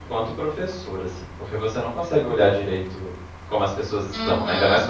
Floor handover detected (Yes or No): Yes